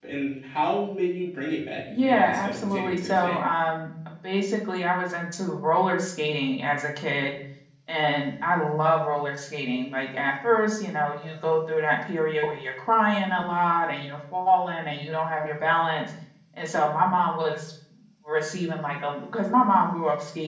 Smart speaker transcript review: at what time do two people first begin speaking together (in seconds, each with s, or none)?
1.9 s